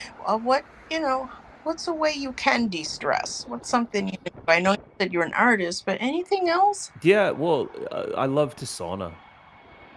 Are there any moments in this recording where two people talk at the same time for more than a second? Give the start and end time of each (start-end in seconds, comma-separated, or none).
none